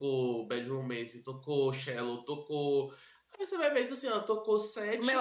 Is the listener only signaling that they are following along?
No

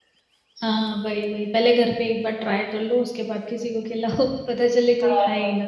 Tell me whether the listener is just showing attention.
No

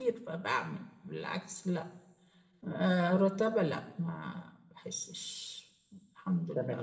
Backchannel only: No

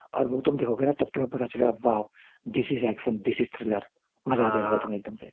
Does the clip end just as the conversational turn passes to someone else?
Yes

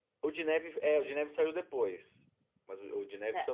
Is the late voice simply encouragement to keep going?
Yes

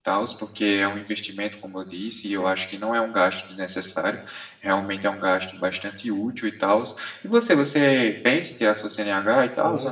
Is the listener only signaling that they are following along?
No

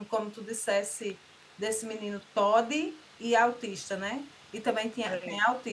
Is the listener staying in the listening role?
Yes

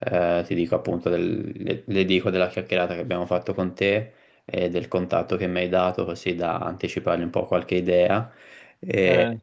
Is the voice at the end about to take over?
No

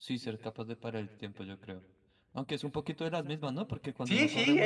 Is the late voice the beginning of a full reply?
Yes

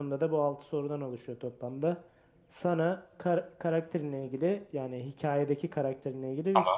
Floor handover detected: No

